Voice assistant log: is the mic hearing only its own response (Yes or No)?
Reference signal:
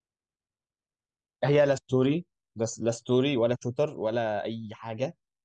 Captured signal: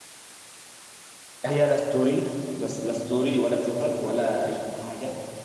Yes